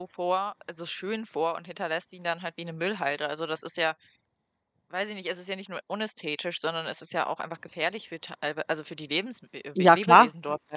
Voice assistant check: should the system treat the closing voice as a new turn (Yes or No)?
Yes